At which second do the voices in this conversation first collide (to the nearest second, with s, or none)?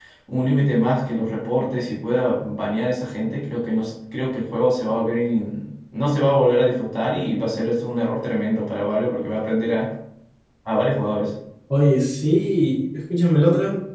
none